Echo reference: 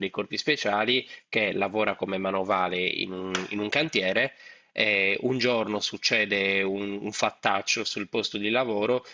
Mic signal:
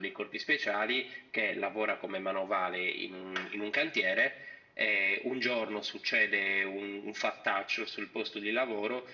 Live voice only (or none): none